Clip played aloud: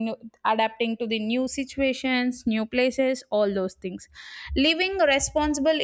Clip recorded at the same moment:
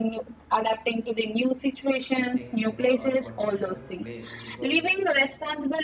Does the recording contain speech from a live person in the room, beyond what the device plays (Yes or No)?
Yes